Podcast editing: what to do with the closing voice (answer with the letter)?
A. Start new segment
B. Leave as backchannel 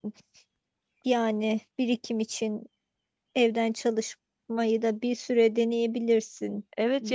A